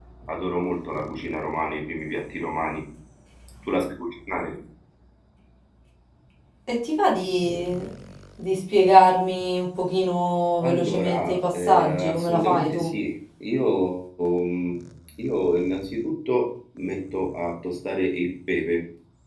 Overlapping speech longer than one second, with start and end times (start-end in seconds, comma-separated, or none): 10.6-12.9